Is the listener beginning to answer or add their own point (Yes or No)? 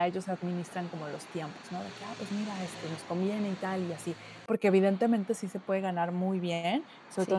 No